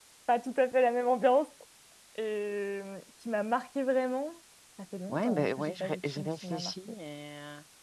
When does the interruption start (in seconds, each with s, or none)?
5.1 s